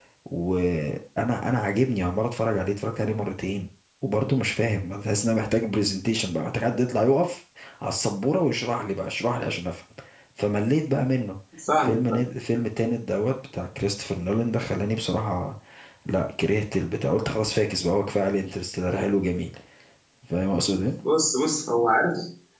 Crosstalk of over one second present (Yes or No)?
No